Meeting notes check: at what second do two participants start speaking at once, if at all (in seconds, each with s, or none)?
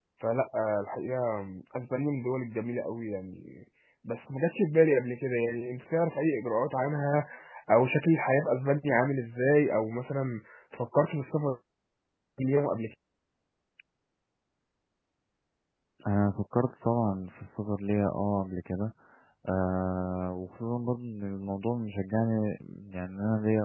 none